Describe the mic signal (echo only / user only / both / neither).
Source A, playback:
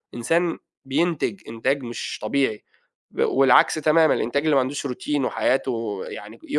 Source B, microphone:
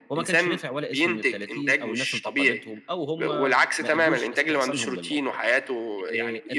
both